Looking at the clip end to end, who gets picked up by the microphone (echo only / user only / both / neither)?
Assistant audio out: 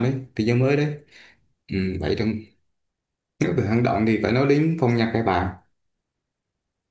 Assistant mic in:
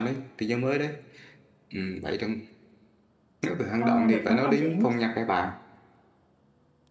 both